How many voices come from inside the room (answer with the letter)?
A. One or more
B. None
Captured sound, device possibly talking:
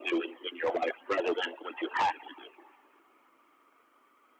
B